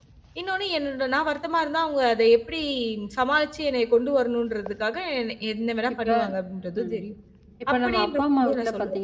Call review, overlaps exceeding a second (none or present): present